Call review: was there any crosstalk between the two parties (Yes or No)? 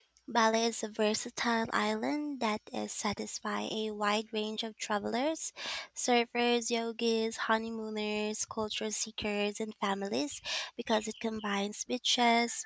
No